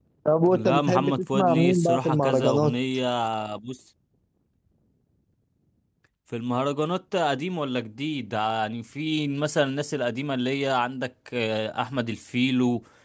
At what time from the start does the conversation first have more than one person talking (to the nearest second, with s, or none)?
1 s